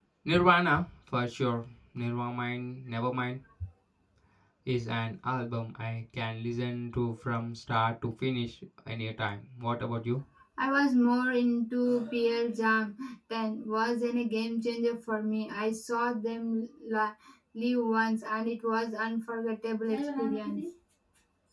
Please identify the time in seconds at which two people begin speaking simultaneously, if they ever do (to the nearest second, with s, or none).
none